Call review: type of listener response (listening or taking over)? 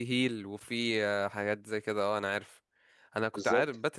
listening